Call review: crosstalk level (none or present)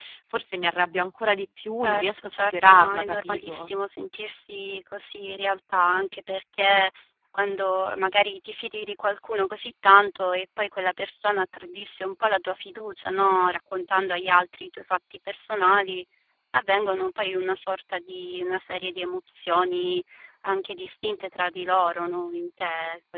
present